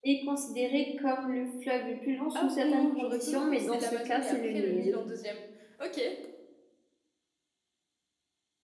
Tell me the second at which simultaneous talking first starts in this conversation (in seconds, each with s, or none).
2.4 s